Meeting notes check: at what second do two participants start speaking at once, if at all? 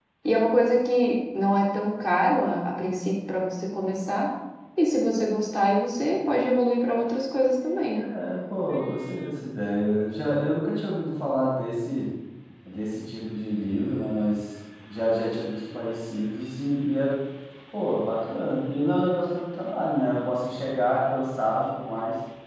none

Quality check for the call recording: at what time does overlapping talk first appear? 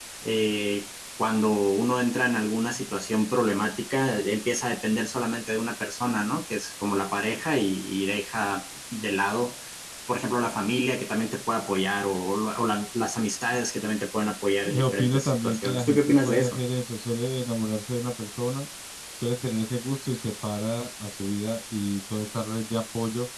14.6 s

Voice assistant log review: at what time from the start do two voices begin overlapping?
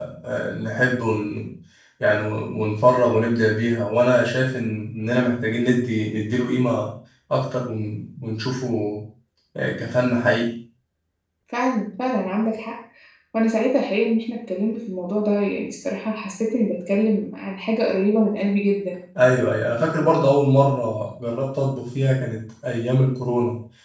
none

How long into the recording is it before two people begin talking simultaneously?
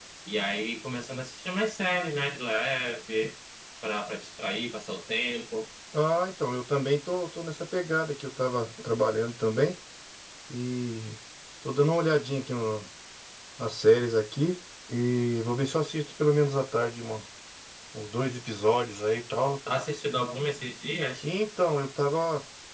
none

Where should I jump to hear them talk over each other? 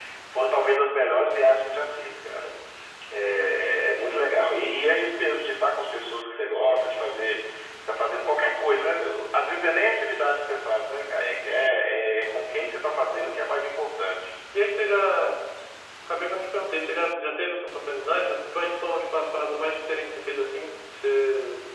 none

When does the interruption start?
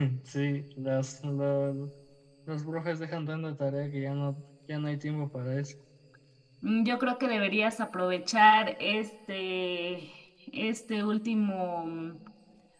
none

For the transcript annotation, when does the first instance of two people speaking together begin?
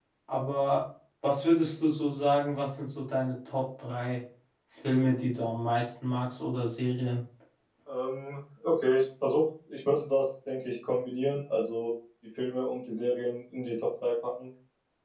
none

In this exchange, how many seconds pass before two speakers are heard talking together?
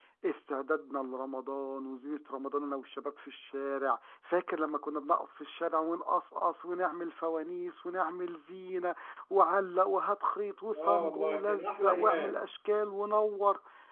10.7 s

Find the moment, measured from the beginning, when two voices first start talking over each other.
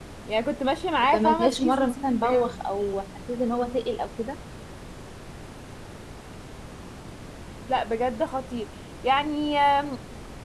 1.1 s

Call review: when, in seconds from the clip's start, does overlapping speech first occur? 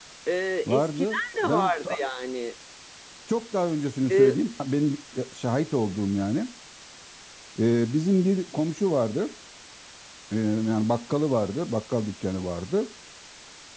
0.6 s

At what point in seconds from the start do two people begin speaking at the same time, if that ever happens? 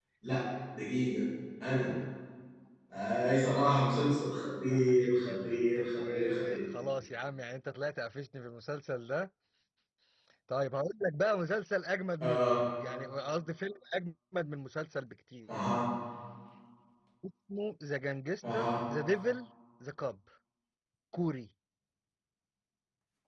4.7 s

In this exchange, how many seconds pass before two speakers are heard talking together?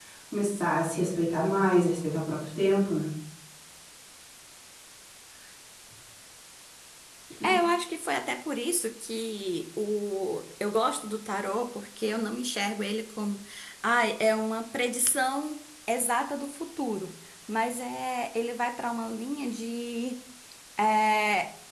none

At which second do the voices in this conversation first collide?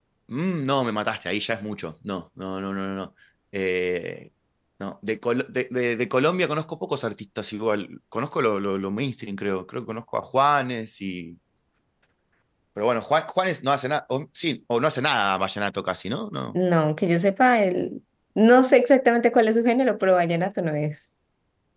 none

